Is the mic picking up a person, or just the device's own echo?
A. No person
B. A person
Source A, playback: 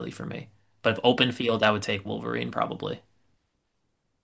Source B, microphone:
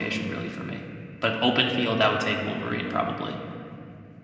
A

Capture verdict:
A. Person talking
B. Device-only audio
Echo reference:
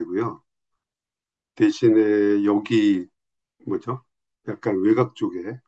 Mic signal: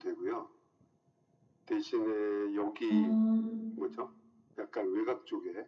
A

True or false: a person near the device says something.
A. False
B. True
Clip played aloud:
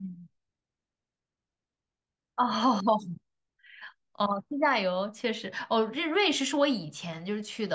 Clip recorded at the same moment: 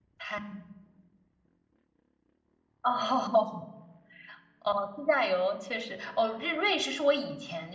A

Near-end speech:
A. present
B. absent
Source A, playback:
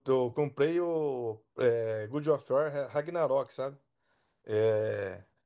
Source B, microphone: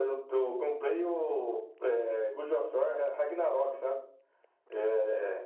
B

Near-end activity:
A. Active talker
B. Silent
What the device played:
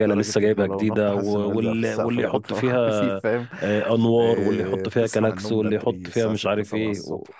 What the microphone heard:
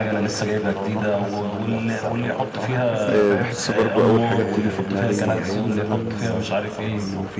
A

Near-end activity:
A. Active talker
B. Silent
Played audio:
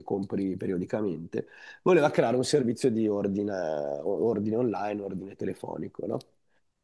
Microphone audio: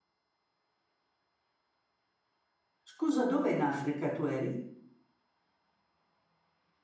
A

